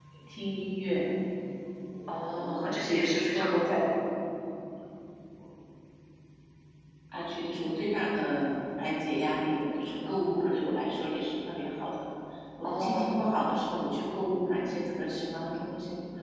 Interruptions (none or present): present